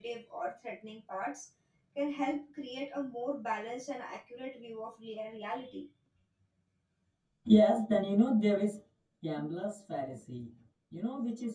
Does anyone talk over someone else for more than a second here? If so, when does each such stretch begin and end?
none

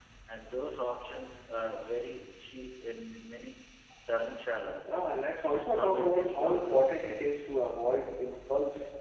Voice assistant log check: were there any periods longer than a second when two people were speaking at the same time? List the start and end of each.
5.5-7.0

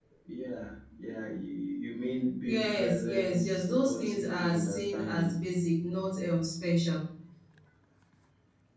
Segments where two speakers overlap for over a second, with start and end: 2.4-5.3

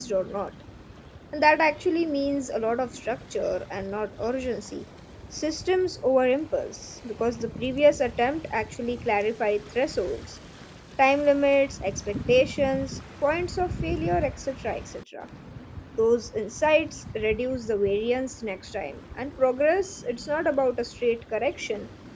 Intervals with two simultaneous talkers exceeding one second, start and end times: none

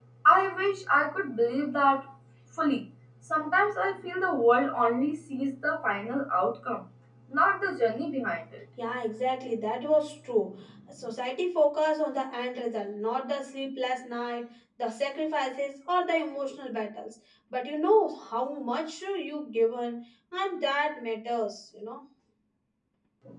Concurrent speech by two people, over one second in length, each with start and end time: none

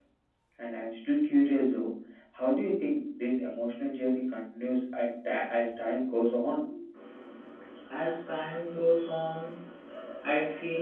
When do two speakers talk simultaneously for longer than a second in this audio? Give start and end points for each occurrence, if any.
none

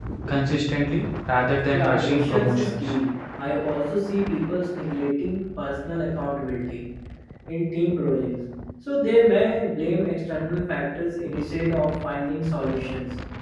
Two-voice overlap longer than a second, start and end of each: 1.7-2.9

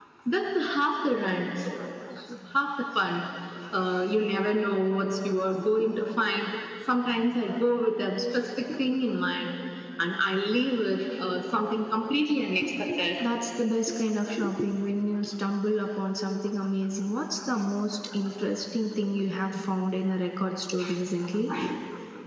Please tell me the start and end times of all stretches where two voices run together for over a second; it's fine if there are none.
none

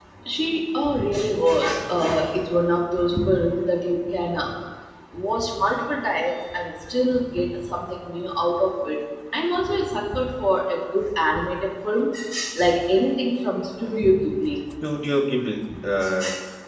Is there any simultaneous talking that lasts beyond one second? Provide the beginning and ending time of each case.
none

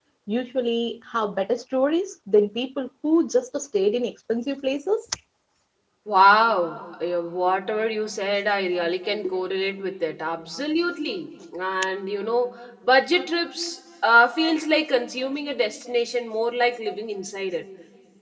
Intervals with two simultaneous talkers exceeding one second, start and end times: none

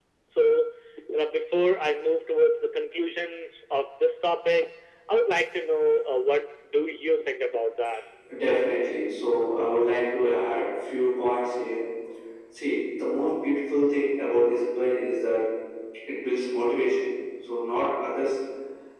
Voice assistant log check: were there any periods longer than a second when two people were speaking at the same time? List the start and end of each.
none

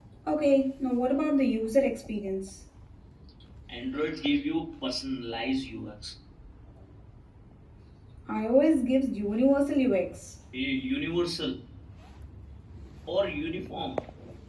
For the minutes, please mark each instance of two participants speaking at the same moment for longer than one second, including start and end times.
none

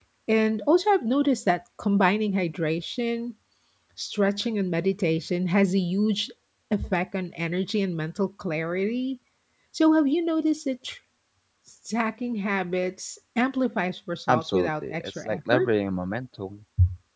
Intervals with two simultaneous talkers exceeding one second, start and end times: 14.3-15.7

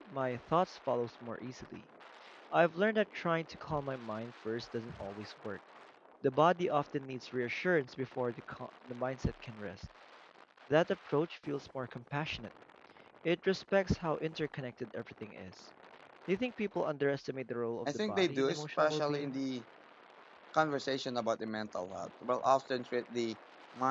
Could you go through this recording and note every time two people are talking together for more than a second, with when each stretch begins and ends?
17.9-19.4

